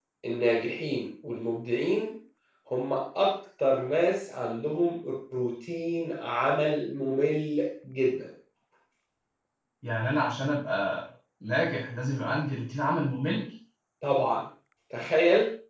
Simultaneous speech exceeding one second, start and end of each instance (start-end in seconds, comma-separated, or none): none